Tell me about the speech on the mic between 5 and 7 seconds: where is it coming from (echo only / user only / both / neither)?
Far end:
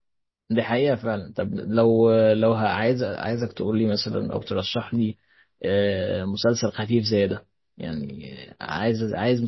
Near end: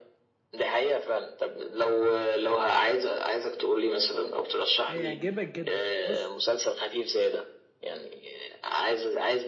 both